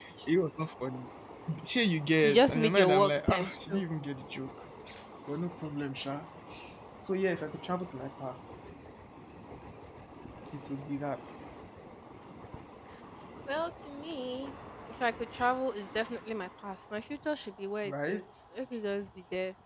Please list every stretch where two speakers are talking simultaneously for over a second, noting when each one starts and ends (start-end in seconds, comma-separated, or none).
2.2-3.8